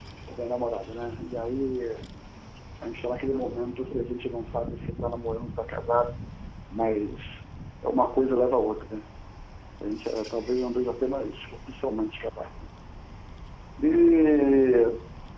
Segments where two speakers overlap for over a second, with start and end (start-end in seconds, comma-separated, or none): none